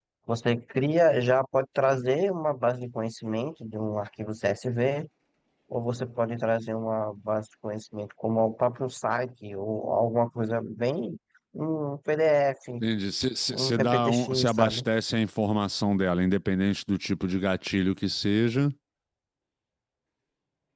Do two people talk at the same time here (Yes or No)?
Yes